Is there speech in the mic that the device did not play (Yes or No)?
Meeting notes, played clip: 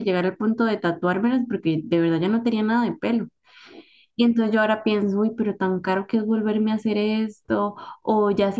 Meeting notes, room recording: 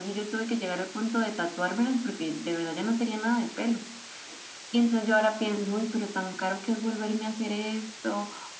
No